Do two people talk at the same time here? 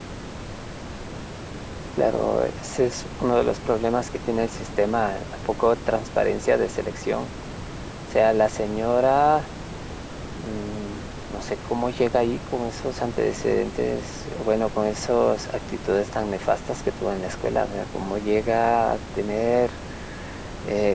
No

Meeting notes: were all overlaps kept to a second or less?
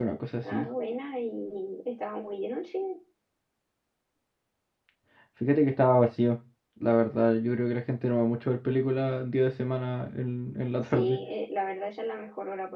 Yes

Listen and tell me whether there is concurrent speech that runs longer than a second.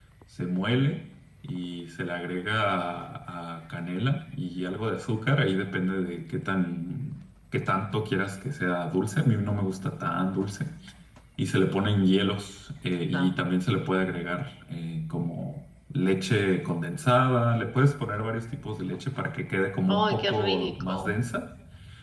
Yes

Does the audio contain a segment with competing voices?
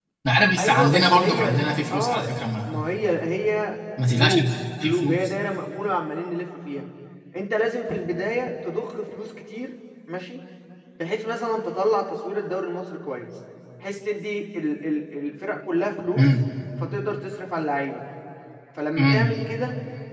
Yes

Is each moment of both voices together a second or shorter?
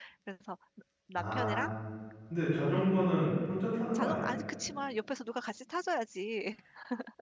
Yes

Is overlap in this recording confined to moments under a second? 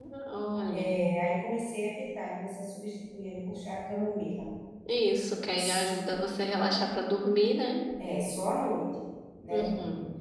Yes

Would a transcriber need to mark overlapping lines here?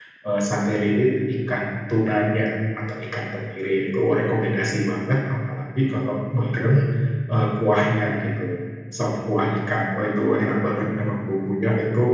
No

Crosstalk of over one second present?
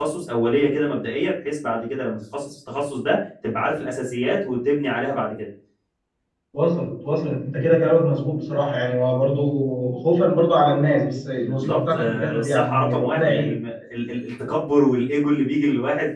Yes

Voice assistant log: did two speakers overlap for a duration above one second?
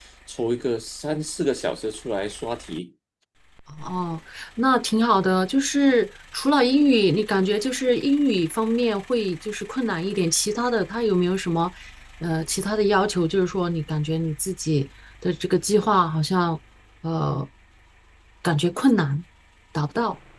No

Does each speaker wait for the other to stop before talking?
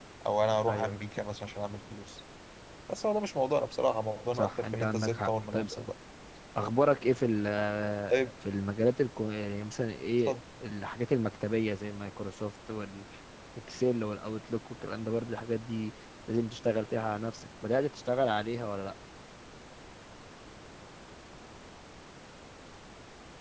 No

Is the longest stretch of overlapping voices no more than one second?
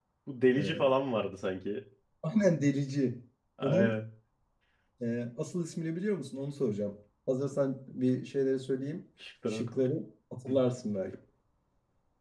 Yes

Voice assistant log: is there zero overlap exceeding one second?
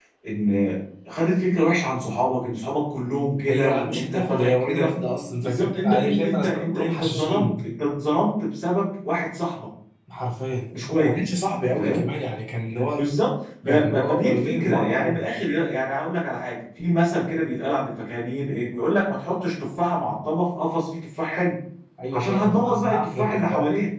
No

